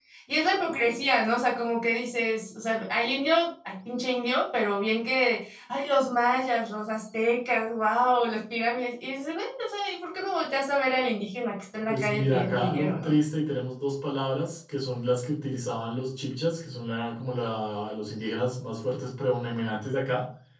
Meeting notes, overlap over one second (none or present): present